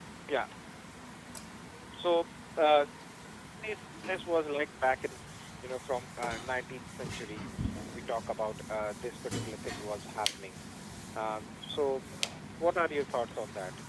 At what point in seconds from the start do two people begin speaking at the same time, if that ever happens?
none

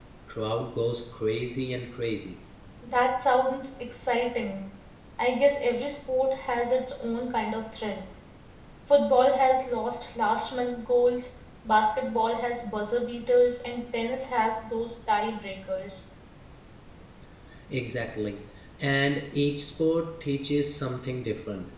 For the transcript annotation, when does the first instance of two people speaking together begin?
none

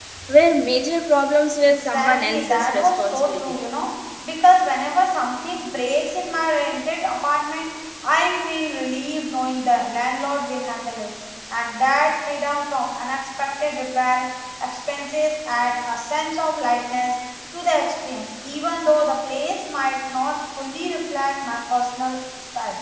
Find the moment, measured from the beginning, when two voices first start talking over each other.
1.6 s

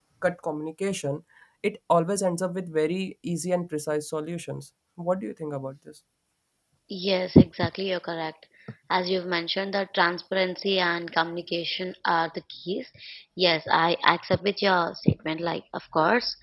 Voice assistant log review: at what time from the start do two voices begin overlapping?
none

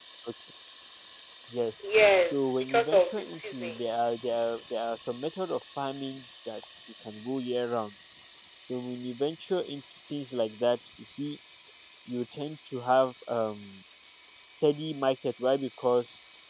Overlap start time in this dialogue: 2.3 s

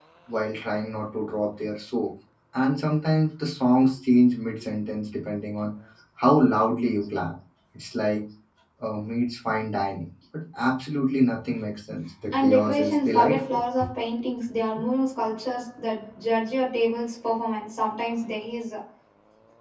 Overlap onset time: 12.3 s

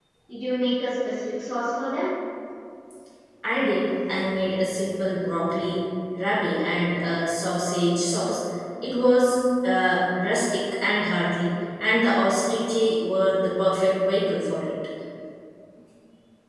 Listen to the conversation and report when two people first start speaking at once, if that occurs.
none

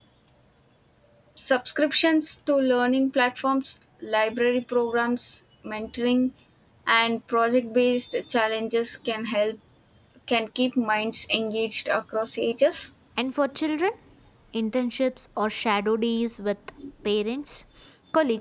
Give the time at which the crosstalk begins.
none

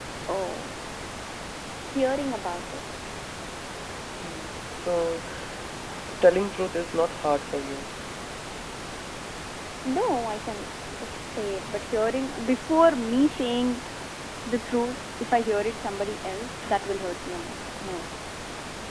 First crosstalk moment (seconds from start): none

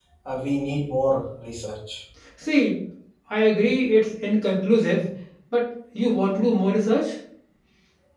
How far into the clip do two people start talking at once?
none

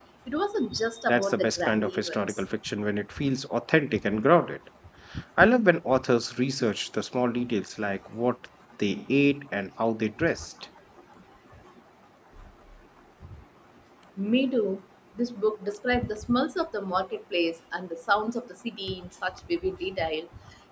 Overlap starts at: 1.1 s

